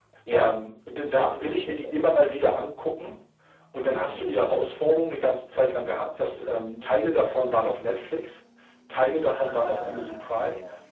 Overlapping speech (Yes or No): Yes